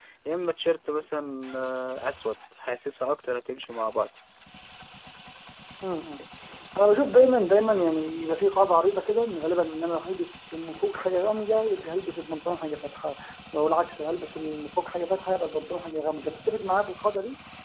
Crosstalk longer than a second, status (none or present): none